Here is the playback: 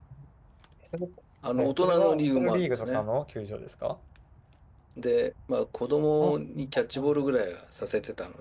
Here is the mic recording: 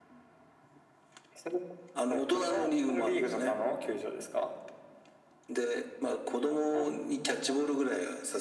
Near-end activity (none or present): none